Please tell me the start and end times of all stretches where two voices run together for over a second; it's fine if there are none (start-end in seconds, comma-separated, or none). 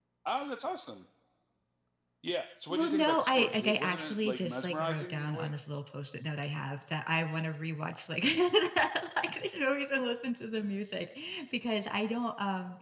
2.7-5.5